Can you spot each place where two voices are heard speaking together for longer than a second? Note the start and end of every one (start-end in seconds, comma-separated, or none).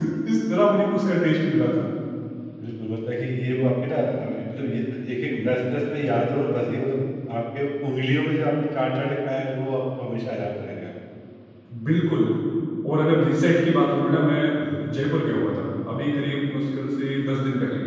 none